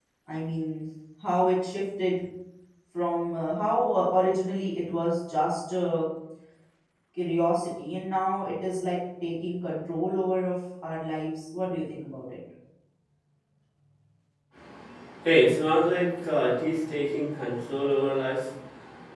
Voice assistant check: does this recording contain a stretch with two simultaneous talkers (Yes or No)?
No